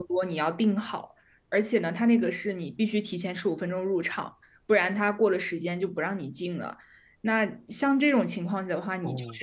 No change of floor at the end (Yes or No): Yes